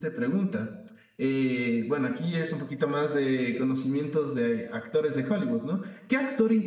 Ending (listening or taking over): listening